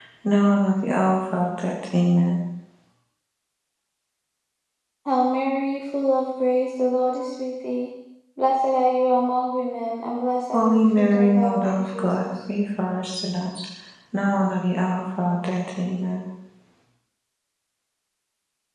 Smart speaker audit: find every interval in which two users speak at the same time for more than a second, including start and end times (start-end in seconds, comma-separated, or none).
10.5-12.3